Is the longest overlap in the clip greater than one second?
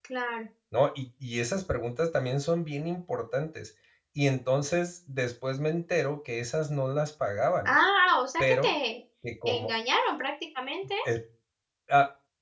No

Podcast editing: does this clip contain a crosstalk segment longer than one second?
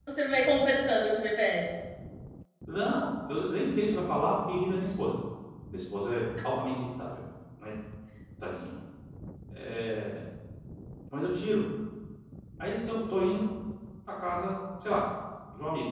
No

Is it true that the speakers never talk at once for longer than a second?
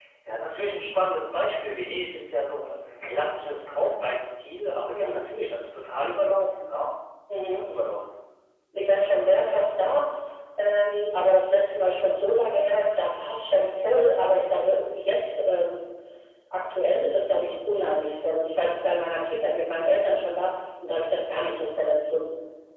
Yes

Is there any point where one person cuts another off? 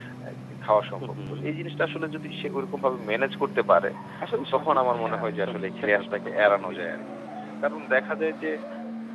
Yes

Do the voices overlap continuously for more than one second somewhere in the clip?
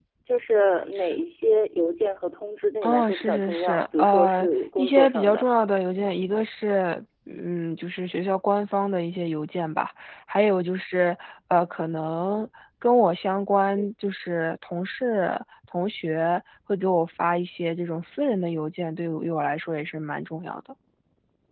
Yes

